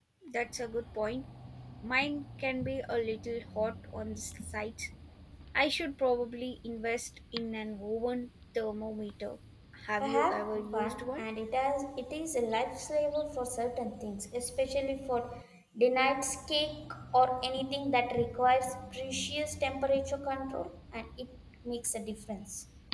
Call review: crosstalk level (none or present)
present